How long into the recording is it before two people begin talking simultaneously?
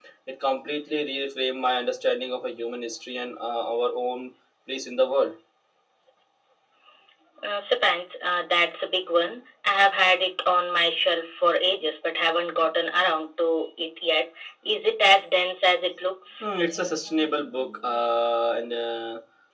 none

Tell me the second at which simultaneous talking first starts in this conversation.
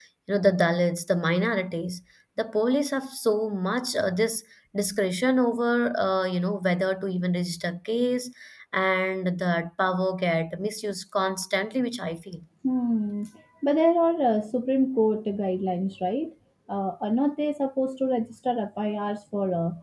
none

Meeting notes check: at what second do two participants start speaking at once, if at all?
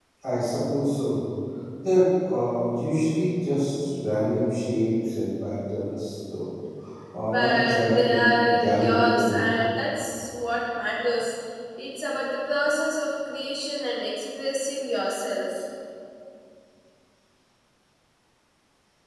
7 s

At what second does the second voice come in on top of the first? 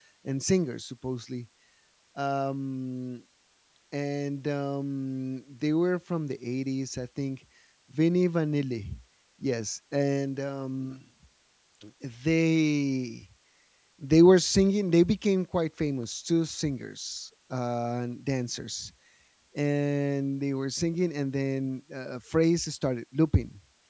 none

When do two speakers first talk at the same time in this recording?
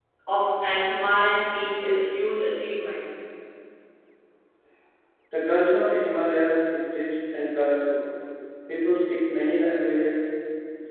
none

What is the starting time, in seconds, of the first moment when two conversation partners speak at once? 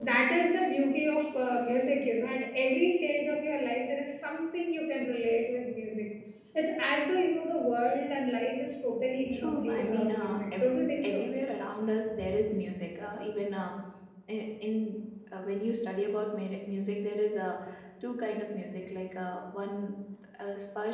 9 s

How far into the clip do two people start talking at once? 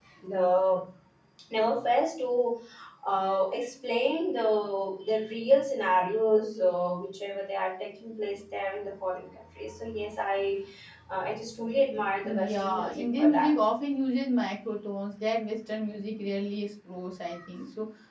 12 s

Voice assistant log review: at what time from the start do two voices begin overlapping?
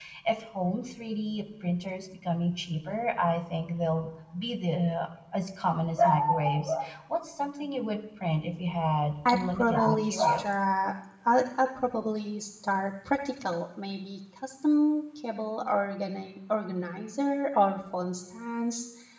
9 s

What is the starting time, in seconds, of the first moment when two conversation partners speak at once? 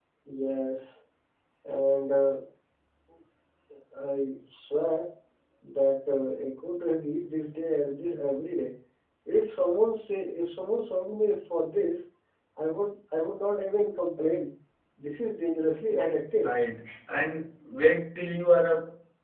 none

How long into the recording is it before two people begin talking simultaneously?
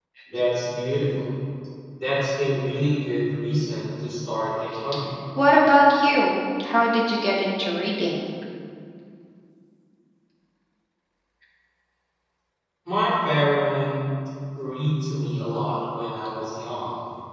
none

